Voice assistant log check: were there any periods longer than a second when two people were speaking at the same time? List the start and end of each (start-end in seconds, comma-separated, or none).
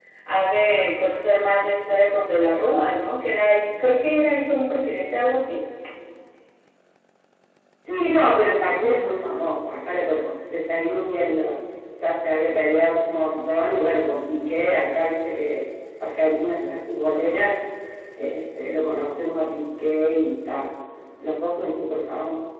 none